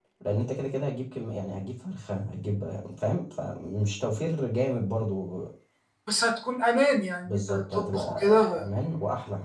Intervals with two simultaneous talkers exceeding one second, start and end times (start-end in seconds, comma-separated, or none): 7.2-8.7